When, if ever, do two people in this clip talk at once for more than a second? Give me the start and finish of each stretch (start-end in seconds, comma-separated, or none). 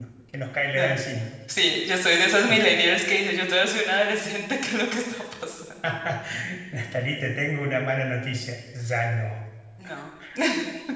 none